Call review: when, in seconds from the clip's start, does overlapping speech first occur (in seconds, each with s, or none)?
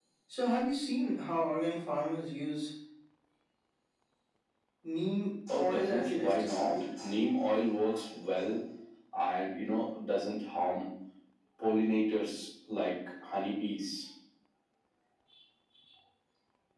5.6 s